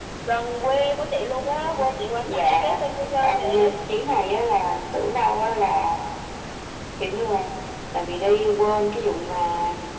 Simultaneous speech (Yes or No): Yes